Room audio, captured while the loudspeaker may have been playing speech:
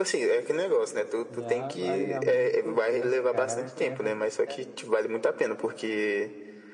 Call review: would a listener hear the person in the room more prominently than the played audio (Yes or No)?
No